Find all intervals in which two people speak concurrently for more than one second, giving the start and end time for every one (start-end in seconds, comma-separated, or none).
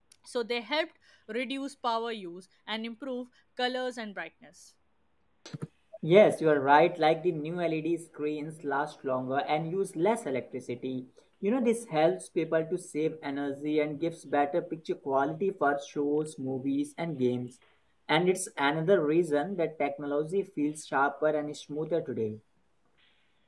none